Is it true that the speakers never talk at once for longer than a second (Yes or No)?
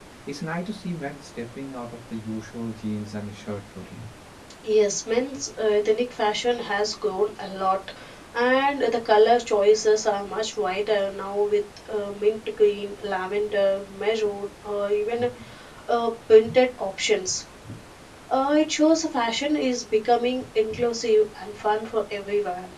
Yes